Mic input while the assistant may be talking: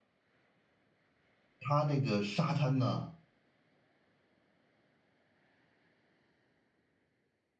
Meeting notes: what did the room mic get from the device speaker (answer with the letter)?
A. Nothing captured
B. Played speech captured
A